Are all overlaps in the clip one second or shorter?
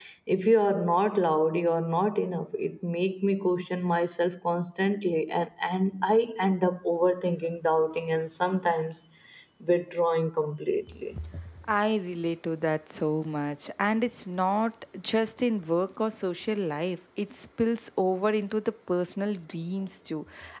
Yes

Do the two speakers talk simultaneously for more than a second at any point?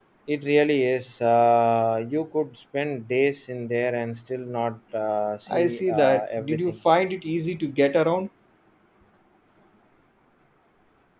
Yes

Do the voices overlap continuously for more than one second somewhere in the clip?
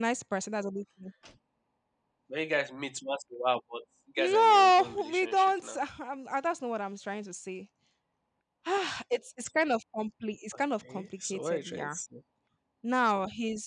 Yes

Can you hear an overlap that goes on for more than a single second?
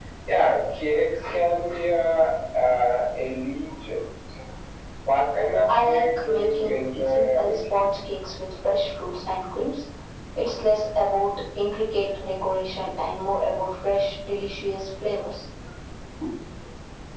Yes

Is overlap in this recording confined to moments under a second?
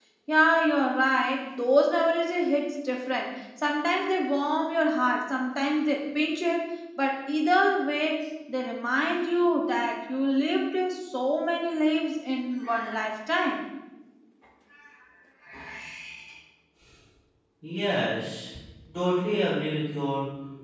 Yes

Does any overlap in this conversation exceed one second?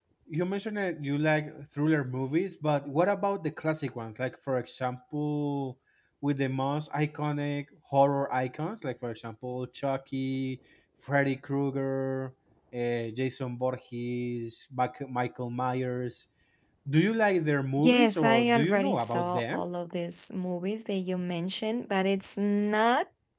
Yes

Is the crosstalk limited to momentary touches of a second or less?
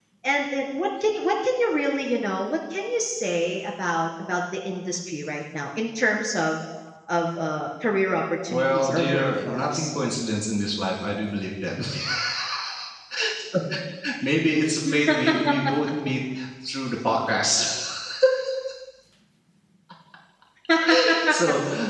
No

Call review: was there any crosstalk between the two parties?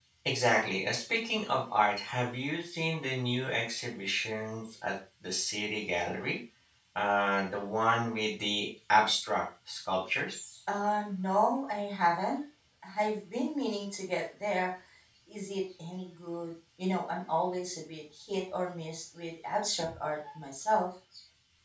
No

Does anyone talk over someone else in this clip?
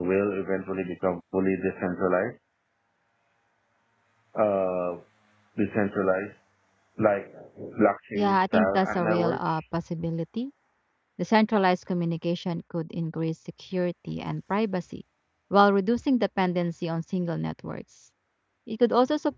Yes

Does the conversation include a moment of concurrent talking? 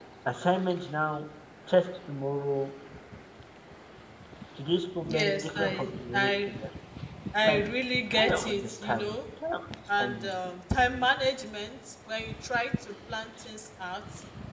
Yes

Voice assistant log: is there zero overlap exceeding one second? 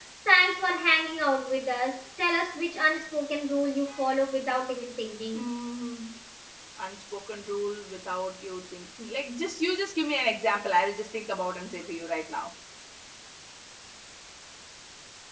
Yes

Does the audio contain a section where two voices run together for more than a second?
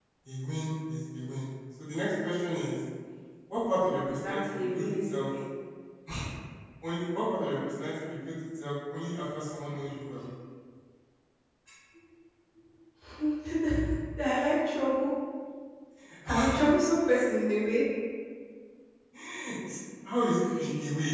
Yes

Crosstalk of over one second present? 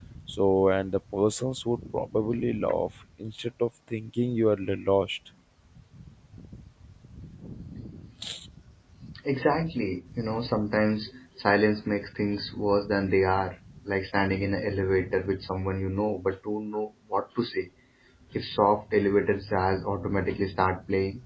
No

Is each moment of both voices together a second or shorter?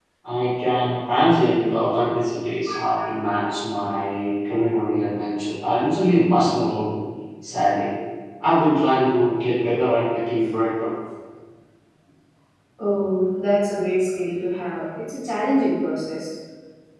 Yes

